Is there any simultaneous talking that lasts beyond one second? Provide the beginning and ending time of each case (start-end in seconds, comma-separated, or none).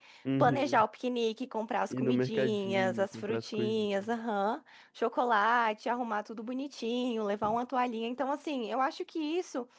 1.9-3.9